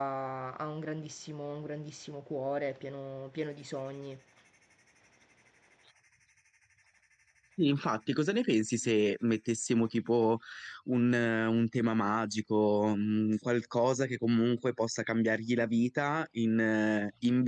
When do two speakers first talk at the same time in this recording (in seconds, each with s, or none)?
none